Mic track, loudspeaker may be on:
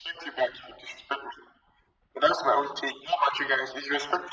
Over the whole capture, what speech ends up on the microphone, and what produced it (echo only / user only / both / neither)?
echo only